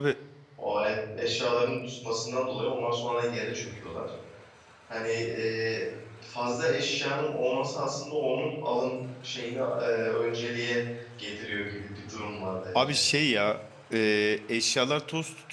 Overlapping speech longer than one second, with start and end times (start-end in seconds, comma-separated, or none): none